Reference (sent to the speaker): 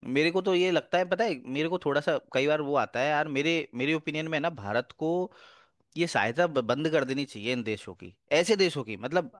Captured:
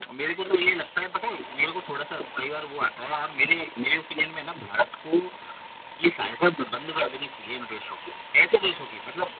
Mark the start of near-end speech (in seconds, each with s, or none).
none